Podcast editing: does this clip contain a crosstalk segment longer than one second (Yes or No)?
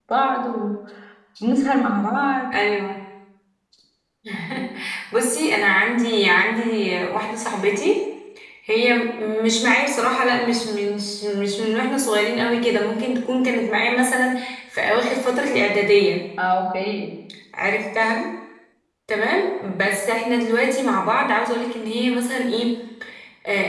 No